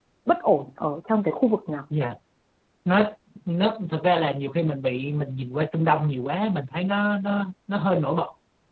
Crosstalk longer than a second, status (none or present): none